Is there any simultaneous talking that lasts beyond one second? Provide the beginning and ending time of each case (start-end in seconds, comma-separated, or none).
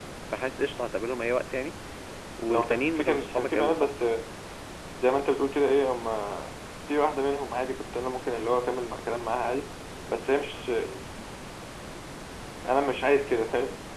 2.5-3.9